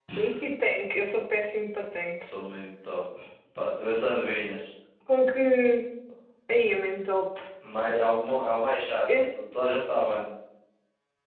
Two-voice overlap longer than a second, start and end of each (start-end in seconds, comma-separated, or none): none